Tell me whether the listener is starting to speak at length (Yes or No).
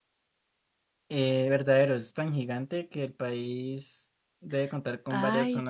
Yes